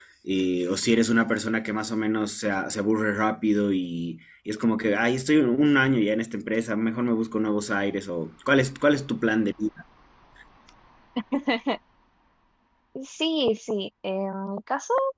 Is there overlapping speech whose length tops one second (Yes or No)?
No